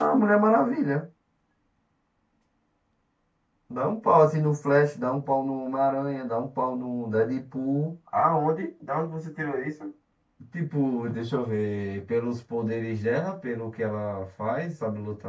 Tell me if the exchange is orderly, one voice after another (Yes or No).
Yes